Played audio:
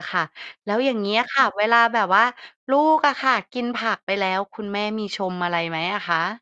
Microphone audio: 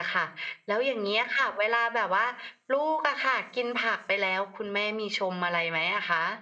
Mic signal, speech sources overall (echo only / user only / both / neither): echo only